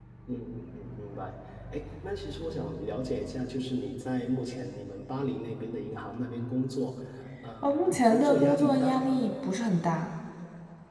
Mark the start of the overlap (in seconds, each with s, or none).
7.6 s